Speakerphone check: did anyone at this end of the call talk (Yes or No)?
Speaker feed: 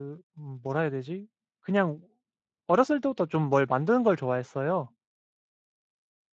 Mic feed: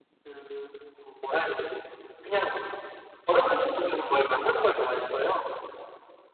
No